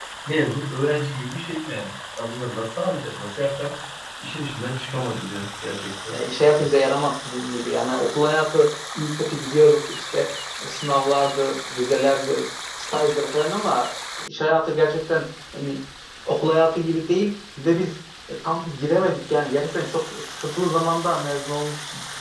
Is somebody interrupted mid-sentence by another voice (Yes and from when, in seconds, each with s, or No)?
No